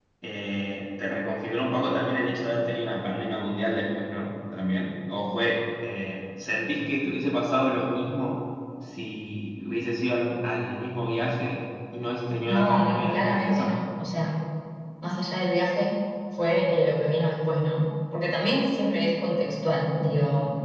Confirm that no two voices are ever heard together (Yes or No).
No